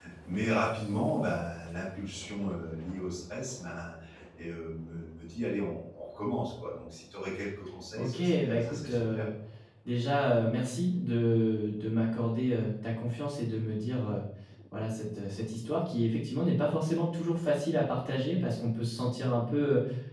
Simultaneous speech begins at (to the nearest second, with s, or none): 8 s